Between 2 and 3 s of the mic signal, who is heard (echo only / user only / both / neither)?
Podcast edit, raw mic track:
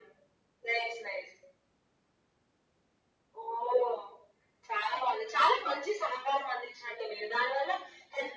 neither